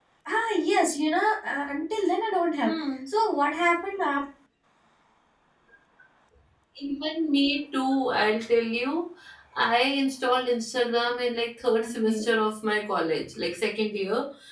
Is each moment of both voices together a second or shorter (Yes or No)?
Yes